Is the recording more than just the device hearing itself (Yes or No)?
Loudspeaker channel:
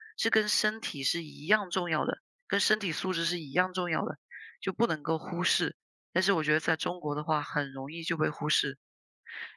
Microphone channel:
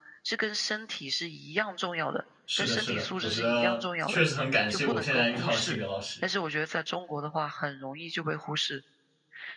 Yes